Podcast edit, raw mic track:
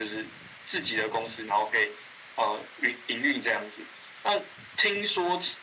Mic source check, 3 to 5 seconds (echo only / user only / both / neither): echo only